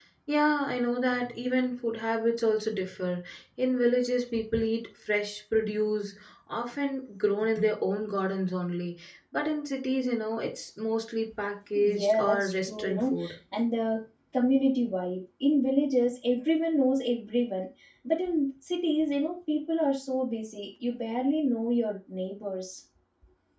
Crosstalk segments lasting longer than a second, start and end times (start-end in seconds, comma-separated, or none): 11.9-13.3